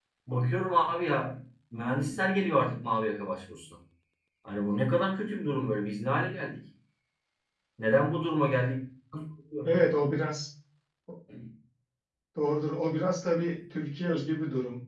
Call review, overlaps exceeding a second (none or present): none